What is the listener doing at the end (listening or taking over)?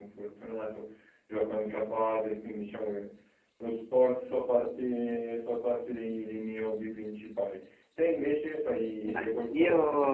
taking over